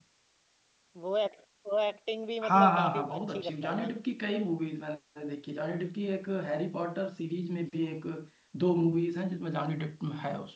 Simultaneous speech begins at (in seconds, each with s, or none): 2.4 s